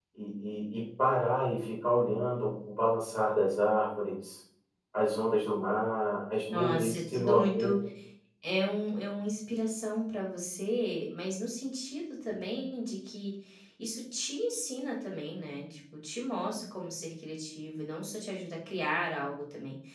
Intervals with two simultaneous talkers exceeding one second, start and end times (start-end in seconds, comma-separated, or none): 6.5-7.7